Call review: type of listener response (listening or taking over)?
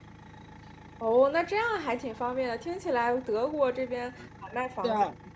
listening